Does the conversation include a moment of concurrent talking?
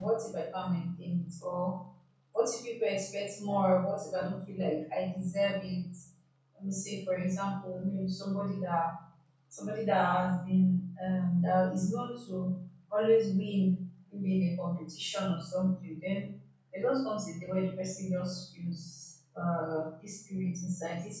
No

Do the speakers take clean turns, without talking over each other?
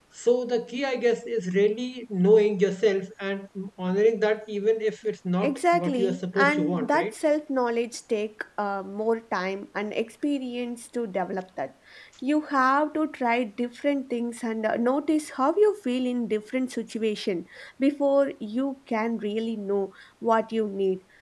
No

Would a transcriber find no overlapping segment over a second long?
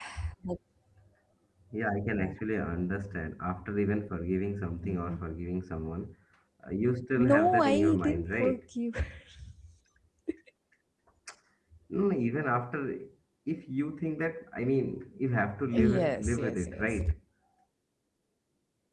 No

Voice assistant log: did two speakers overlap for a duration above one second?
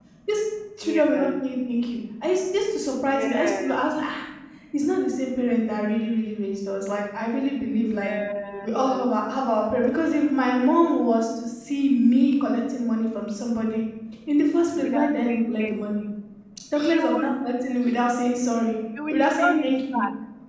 Yes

